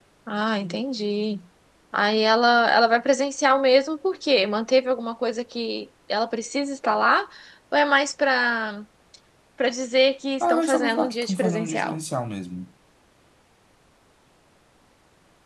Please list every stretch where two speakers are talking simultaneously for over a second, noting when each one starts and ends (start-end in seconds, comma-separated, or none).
10.4-12.0